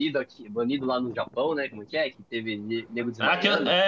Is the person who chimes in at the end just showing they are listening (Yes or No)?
No